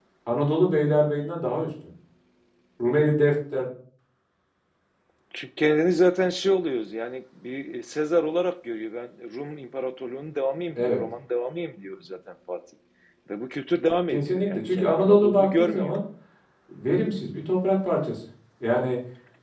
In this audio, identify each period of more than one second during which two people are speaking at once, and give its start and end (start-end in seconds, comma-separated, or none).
14.1-15.9